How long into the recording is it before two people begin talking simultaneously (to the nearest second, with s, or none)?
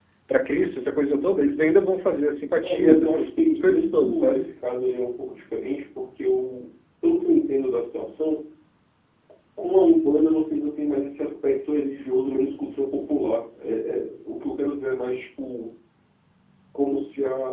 3 s